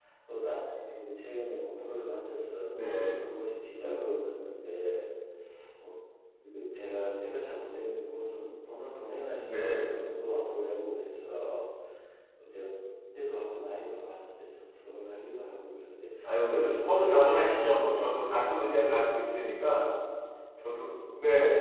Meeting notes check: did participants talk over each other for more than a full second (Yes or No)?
Yes